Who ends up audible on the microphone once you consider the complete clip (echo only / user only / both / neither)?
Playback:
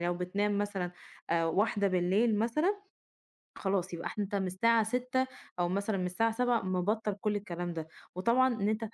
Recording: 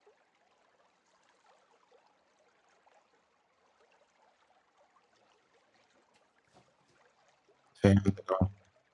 user only